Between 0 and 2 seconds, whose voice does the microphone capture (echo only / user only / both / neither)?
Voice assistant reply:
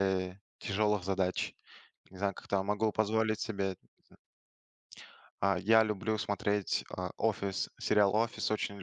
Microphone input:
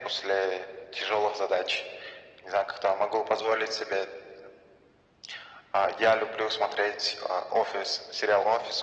echo only